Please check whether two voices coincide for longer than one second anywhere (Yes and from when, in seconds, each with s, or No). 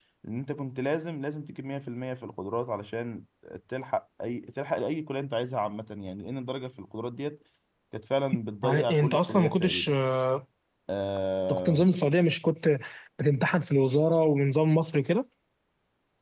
Yes, from 8.6 s